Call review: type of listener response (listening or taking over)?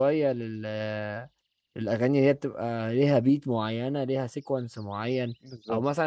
listening